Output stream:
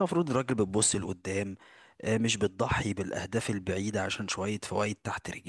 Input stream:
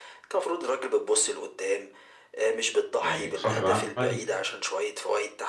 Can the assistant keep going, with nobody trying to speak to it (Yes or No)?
No